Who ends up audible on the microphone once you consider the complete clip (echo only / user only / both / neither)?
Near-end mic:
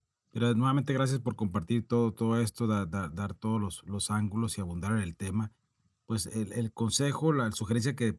user only